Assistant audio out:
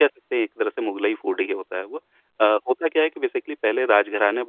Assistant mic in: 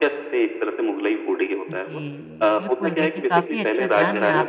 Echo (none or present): present